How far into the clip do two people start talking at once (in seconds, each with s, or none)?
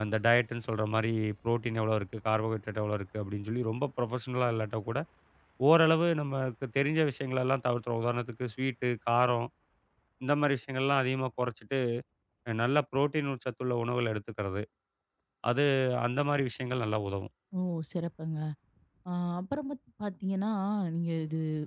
none